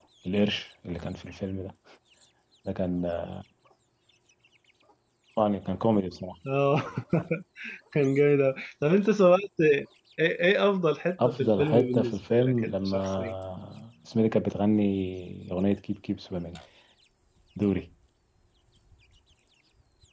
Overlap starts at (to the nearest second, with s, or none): 11 s